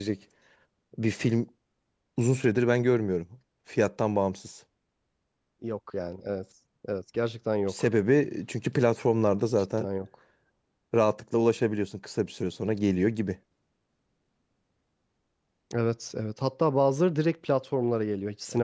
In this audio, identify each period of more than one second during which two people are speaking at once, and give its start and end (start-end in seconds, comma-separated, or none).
none